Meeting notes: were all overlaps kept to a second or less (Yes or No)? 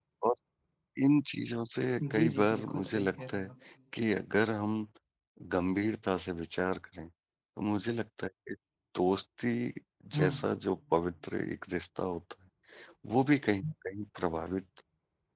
No